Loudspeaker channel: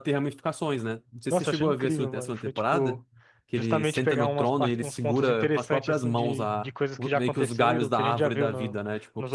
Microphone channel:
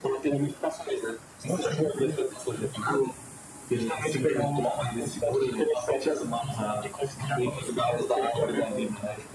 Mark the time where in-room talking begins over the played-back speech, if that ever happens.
none

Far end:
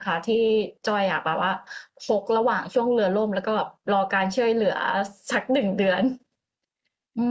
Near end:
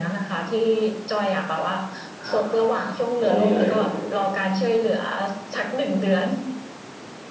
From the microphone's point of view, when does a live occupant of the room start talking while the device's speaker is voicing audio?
2.2 s

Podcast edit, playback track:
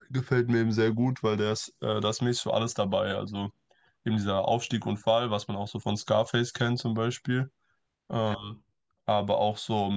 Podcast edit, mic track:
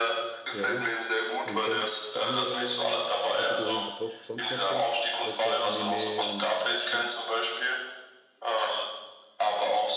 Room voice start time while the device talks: 0.5 s

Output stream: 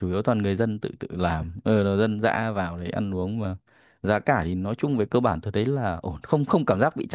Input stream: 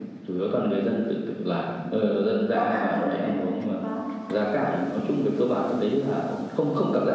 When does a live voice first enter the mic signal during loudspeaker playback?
2.5 s

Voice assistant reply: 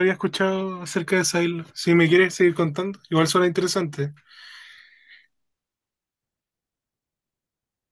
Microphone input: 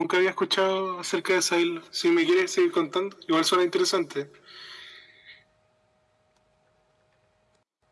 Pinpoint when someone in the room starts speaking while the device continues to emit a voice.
none

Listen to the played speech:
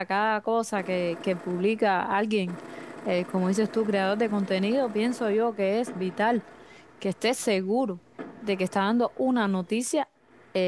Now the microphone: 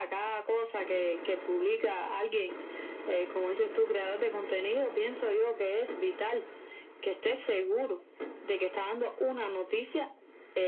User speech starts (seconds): none

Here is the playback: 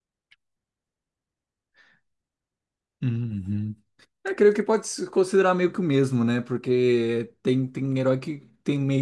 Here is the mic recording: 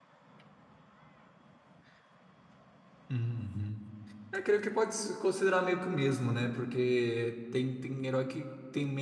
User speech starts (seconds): none

